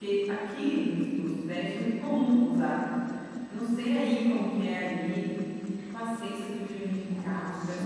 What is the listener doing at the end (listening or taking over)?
listening